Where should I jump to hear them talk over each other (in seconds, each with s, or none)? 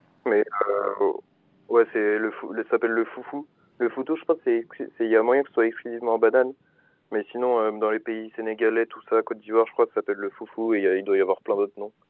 none